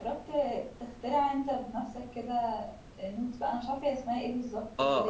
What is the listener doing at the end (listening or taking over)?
taking over